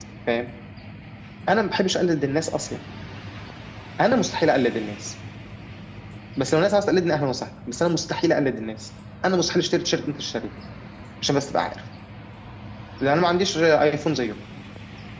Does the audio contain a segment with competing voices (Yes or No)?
No